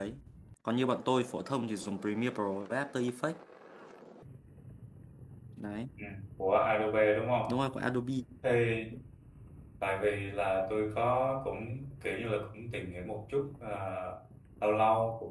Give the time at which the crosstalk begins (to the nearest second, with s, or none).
none